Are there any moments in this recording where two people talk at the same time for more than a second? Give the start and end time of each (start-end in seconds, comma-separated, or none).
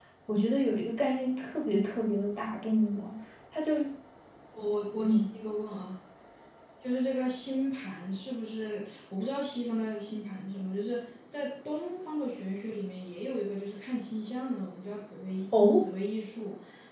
none